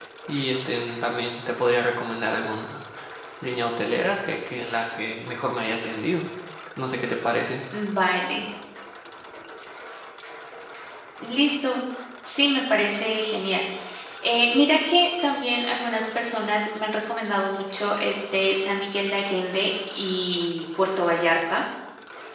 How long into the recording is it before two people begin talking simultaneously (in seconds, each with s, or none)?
none